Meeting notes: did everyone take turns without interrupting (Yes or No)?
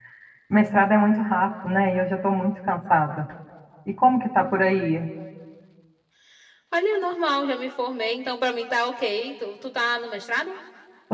Yes